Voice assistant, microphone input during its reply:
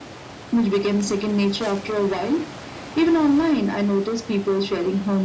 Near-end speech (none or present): none